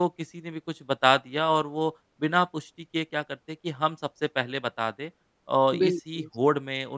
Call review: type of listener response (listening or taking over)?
listening